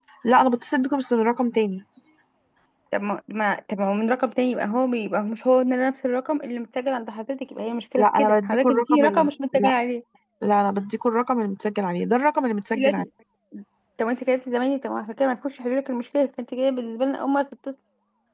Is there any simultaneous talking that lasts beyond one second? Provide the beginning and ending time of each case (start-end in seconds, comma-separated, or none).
8.0-9.7